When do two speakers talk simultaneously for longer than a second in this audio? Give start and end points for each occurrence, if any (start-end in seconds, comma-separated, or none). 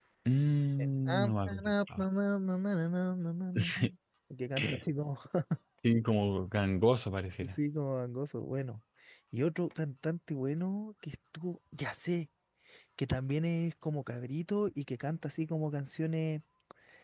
0.8-2.0